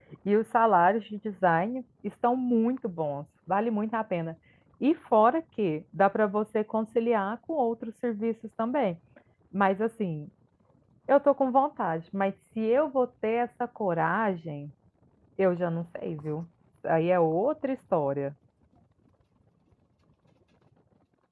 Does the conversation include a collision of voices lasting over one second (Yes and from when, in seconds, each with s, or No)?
No